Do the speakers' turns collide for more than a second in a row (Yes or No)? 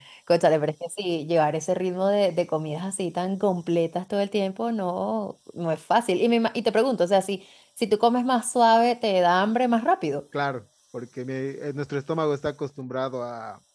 No